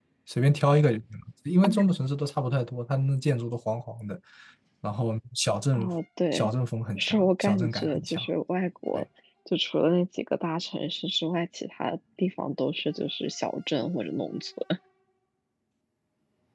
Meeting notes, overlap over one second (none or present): present